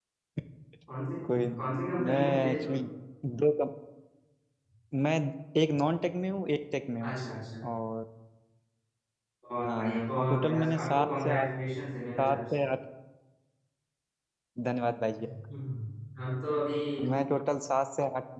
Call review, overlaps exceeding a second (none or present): present